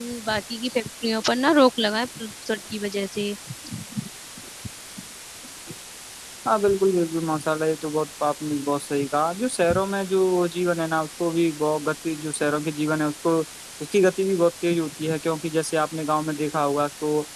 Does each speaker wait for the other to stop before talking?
Yes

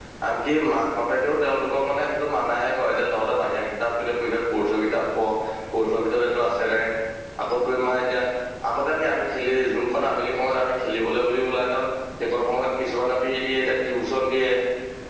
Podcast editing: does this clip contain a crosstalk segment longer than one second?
No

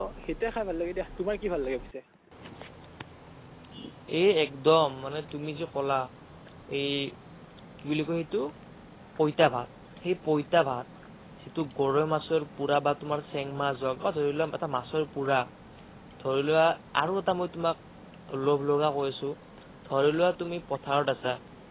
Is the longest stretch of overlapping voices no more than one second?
Yes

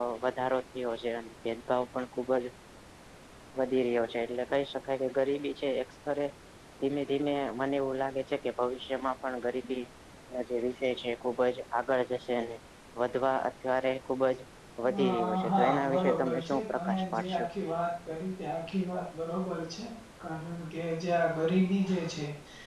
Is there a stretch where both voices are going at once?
Yes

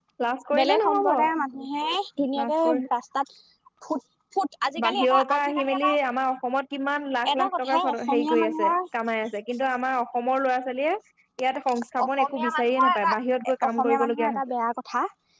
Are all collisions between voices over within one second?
No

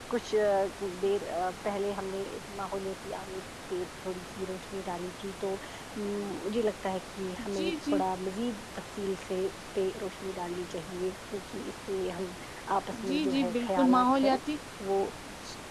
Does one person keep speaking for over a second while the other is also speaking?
Yes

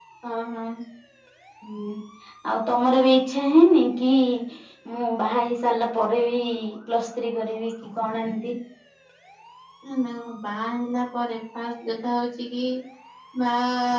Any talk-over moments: No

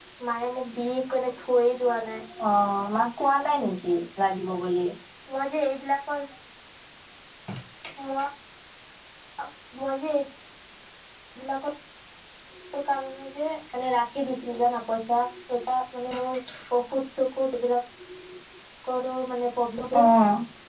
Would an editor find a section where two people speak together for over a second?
No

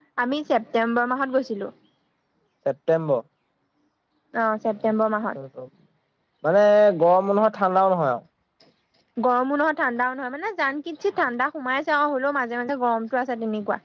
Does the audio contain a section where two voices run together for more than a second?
No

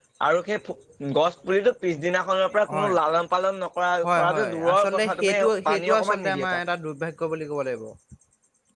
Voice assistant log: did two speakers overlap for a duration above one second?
Yes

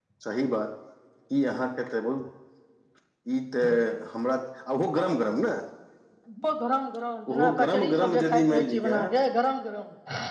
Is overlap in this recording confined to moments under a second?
No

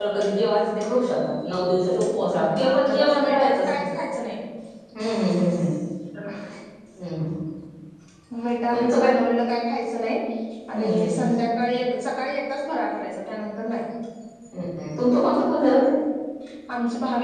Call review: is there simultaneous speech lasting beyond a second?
Yes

